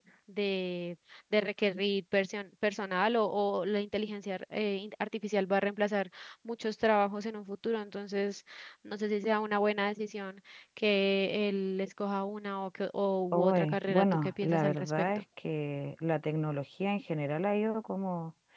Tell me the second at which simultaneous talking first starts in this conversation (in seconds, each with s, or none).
13.3 s